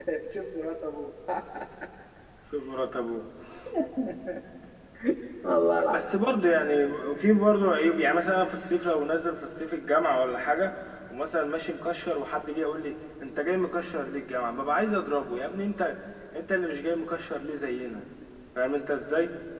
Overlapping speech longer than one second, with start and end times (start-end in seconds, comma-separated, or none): none